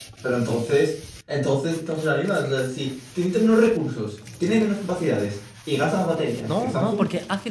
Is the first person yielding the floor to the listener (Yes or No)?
Yes